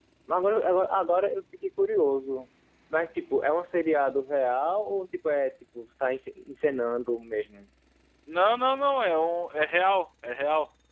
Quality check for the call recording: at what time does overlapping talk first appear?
none

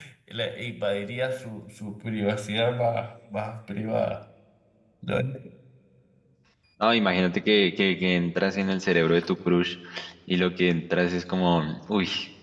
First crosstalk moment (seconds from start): none

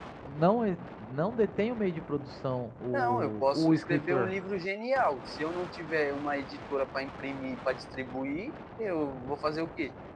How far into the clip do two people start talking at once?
2.9 s

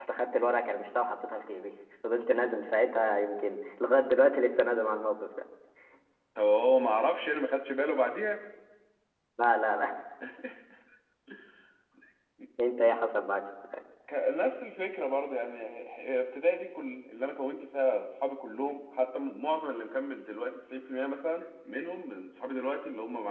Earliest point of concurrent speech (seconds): none

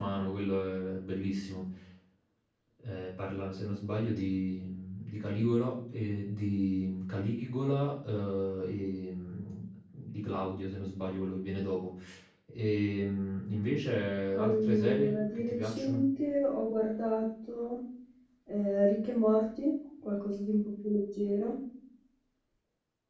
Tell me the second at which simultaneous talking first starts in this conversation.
14.3 s

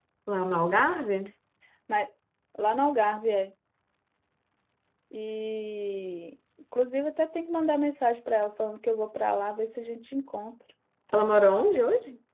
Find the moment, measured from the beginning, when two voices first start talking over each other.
none

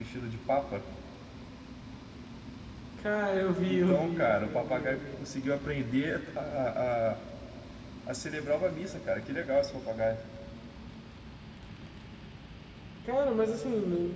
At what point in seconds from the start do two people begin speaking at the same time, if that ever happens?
3.6 s

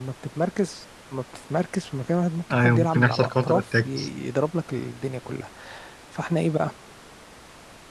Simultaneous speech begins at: 2.5 s

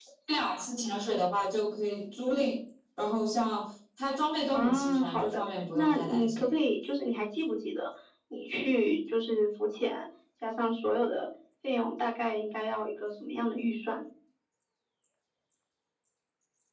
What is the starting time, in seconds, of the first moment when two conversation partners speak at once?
4.5 s

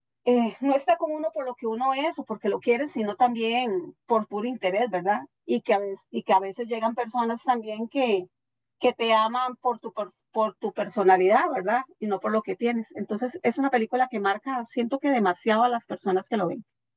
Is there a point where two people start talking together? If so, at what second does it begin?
none

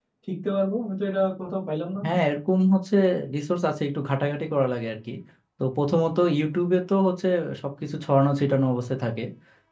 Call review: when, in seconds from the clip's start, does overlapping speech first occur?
none

